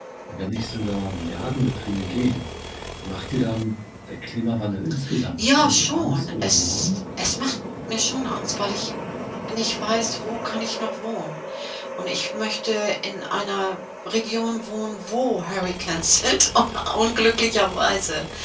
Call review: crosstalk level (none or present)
present